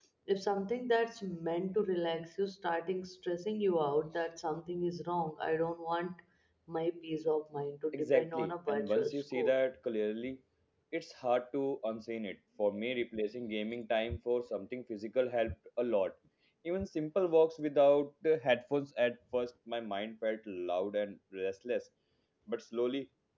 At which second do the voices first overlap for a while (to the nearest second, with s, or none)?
8 s